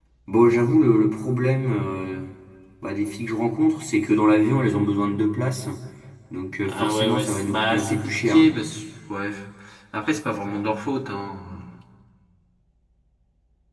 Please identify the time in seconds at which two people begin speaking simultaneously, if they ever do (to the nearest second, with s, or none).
7 s